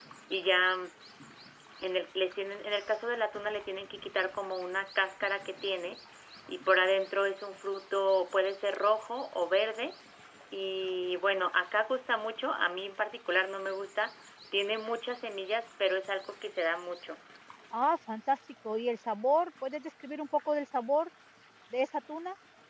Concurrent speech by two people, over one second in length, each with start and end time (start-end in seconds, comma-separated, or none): none